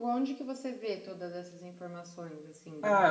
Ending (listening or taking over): taking over